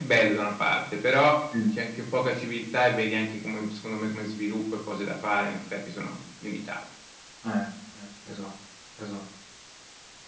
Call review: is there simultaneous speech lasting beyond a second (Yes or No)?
No